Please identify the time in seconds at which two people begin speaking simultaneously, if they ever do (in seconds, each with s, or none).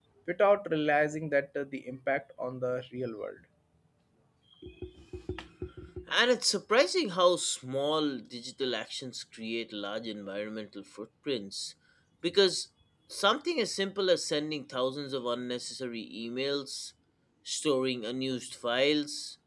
none